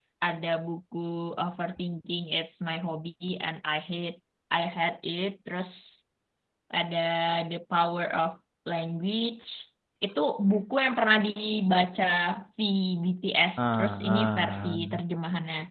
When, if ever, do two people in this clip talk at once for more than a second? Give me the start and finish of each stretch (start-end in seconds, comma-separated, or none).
13.6-15.0